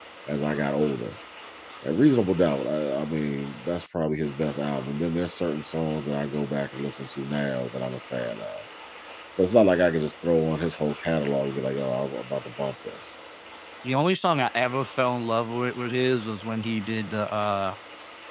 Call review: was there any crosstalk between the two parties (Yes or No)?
No